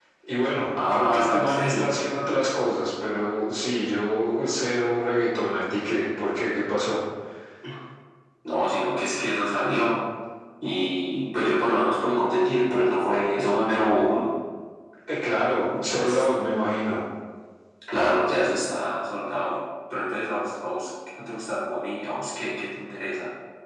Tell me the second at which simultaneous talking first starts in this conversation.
0.8 s

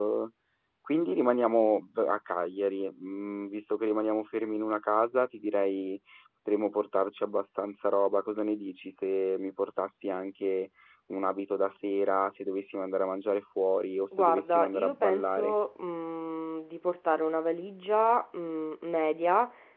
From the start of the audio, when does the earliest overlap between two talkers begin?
14.1 s

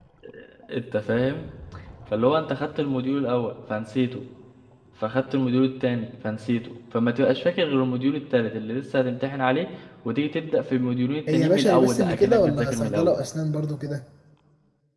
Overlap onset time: 11.3 s

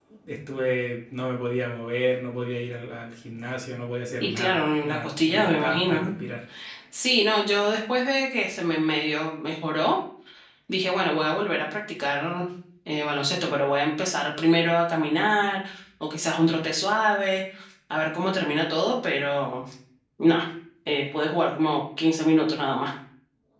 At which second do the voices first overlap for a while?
4.2 s

